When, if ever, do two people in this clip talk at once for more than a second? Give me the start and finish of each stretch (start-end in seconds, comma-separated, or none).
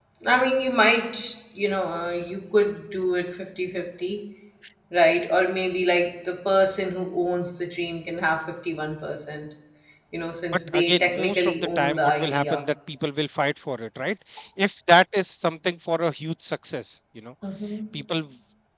10.7-12.6